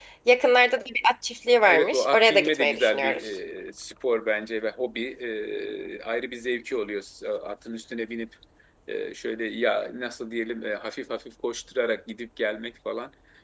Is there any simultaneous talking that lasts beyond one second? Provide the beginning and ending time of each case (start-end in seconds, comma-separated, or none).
1.7-3.2